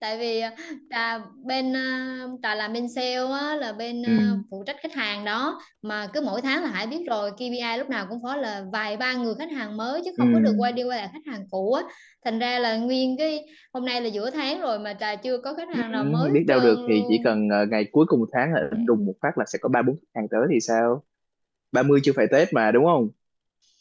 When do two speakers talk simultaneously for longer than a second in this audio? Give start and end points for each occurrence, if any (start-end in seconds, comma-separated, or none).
15.7-17.4